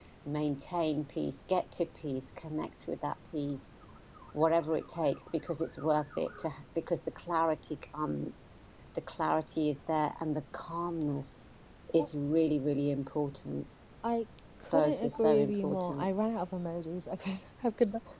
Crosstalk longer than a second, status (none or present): present